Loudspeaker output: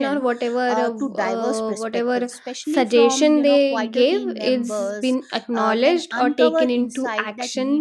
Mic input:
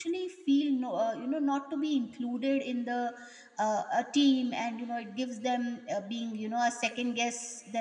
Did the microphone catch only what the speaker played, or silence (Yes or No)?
No